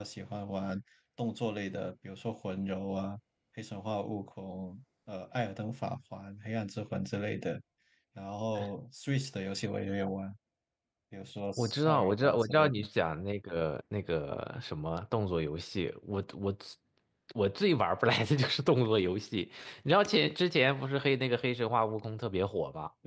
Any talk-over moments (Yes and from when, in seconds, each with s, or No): Yes, from 11.6 s